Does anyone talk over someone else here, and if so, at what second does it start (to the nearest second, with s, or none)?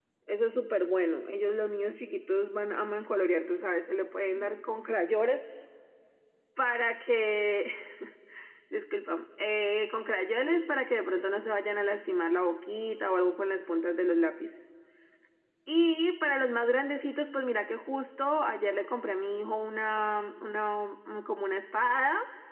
none